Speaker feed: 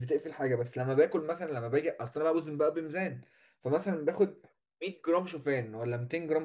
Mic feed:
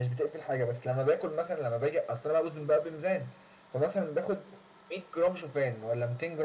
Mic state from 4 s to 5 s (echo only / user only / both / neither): echo only